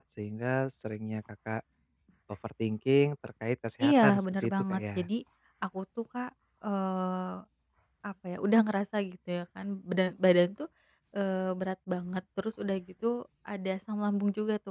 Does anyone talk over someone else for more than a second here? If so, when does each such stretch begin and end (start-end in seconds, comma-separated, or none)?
3.8-5.0